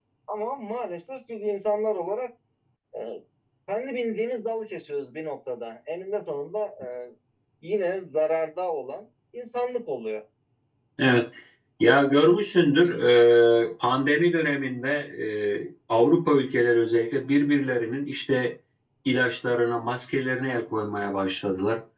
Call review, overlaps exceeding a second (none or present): none